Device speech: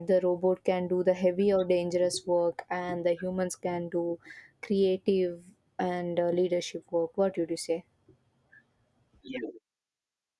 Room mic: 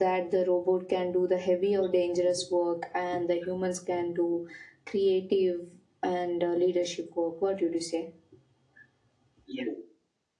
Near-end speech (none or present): none